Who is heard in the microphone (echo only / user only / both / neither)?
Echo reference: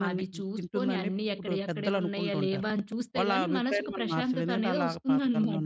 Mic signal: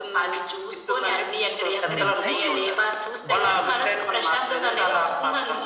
both